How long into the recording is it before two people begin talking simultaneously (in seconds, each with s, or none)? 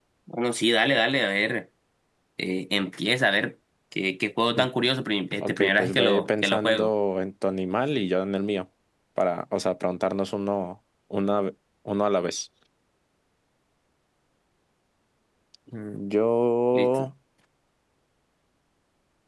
5.4 s